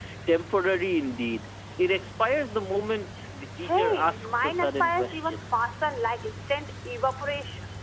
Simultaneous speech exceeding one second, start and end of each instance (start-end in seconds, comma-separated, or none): 3.6-5.4